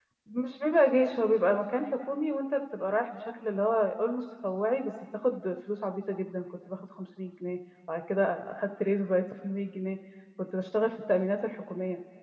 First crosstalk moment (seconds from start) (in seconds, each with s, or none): none